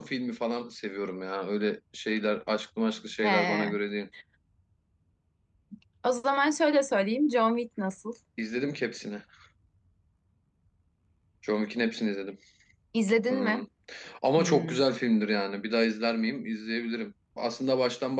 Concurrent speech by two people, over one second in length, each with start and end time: none

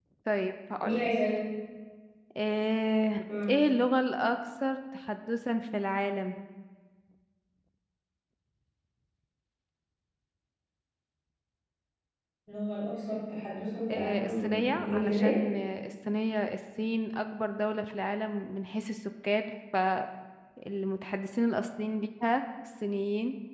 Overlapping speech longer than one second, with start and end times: 13.9-15.4

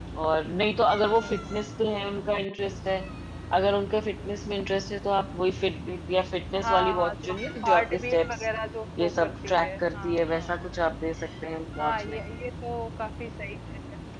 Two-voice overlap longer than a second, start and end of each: 6.6-8.5, 9.0-10.5

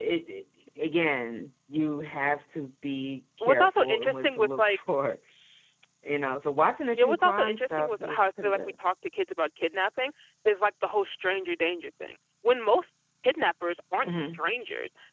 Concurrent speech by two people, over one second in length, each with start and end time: 3.4-4.8, 7.0-8.6

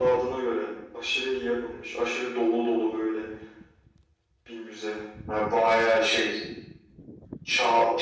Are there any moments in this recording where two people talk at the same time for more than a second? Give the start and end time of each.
none

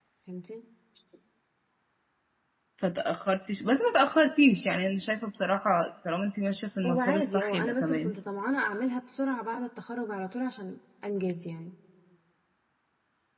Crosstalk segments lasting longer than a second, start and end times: 6.8-8.1

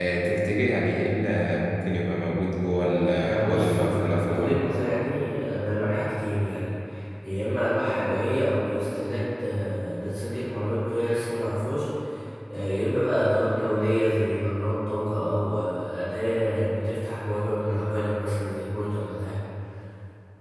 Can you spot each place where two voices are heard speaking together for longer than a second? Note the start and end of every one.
3.2-4.6

